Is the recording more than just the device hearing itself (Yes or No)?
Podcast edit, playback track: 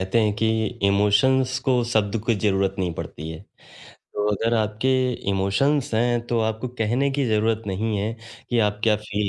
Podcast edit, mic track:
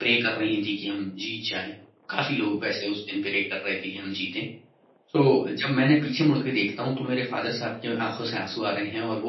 Yes